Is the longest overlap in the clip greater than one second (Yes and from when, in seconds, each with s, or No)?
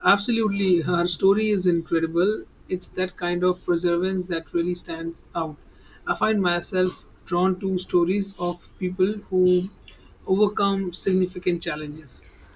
No